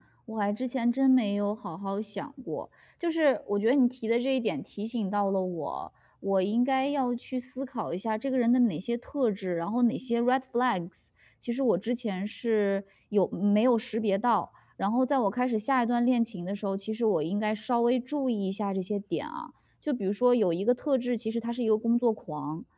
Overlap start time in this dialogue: none

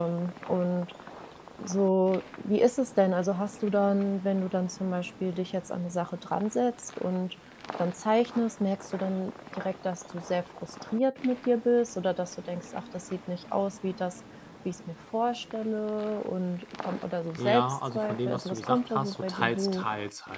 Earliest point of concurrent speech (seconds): 17.4 s

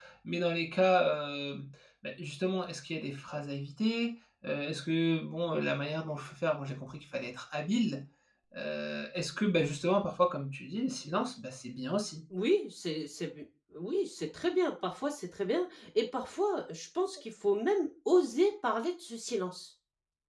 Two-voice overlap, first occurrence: none

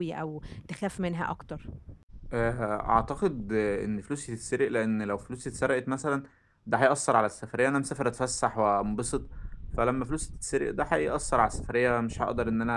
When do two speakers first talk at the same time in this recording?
none

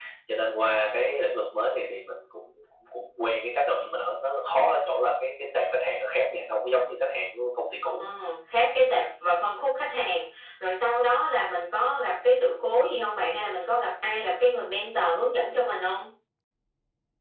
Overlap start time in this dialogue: none

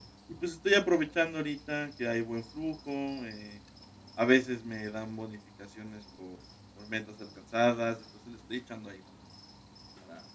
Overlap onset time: none

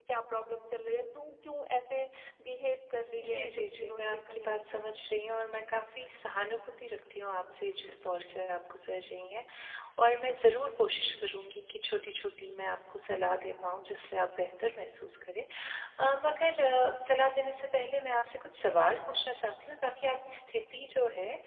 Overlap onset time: 3.2 s

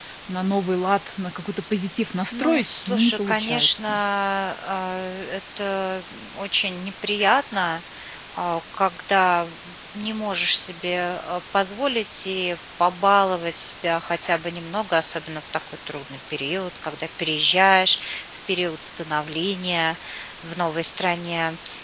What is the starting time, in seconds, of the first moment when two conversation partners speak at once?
2.3 s

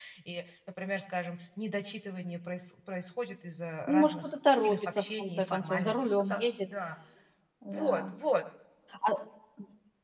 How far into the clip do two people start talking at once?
3.9 s

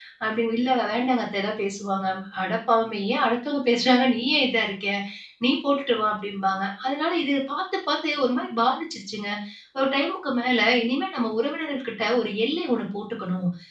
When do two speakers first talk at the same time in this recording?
none

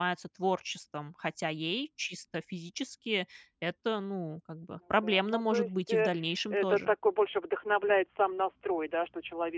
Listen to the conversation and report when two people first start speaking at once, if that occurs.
4.8 s

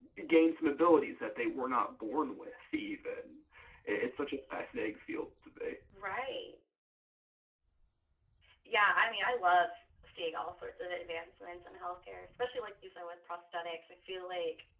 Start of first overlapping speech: none

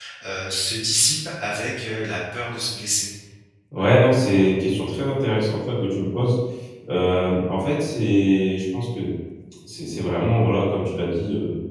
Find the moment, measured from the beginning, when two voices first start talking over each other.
none

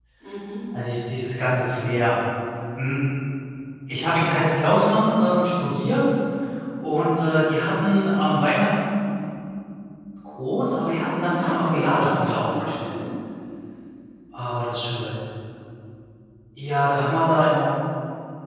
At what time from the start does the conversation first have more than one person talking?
11.3 s

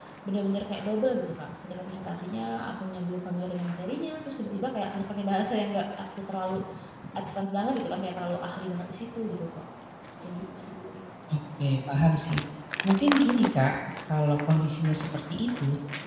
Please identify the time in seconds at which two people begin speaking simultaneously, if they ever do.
none

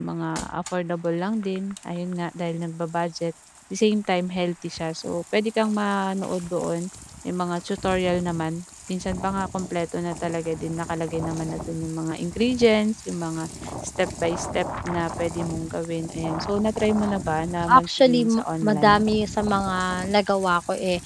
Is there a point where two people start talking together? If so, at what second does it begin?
17.7 s

